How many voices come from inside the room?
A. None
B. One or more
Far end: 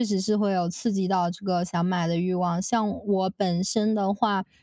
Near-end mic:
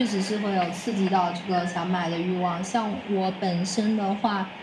A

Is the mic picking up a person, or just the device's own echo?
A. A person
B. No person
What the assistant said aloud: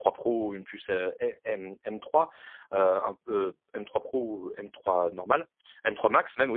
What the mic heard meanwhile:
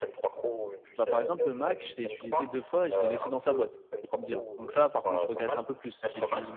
A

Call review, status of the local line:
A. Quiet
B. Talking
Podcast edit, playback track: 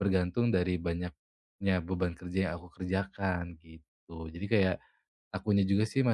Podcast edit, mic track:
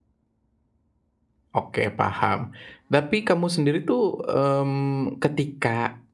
B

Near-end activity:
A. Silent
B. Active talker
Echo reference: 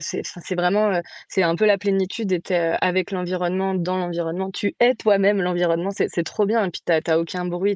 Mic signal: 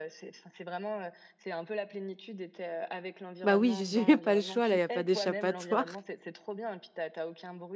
B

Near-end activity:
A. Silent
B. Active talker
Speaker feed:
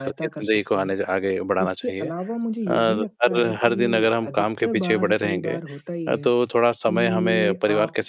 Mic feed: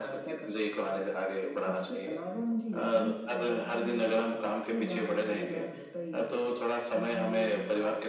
A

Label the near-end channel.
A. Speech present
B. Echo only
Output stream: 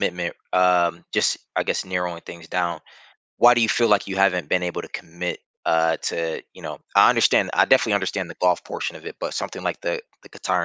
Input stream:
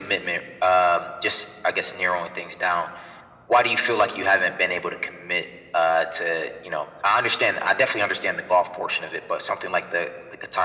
B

